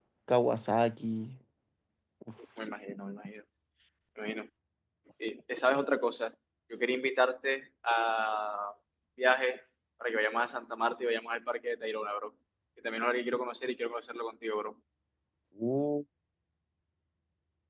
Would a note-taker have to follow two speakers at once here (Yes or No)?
No